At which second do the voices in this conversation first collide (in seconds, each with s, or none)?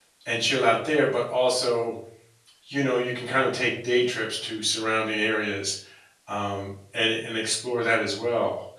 none